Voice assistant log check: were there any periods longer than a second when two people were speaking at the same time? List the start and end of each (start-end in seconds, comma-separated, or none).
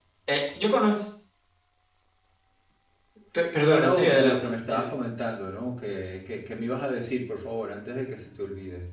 3.7-4.9